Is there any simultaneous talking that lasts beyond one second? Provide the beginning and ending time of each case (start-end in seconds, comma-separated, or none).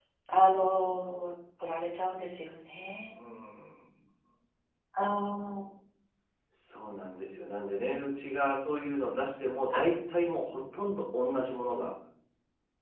none